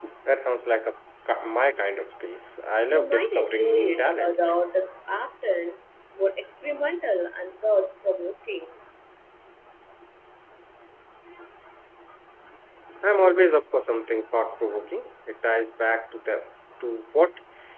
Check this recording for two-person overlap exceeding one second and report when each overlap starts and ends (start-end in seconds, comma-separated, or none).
2.9-4.3